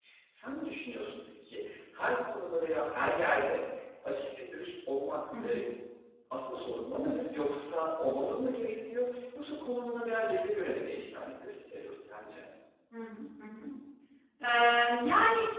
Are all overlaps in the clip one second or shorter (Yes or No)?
Yes